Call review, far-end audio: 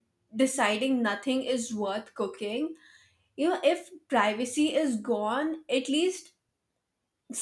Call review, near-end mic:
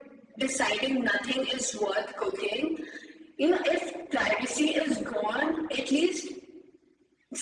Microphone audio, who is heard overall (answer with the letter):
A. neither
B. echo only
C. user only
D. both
B